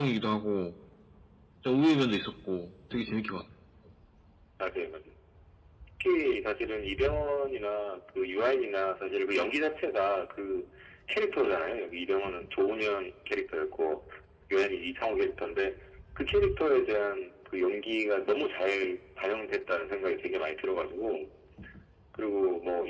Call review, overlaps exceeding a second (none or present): none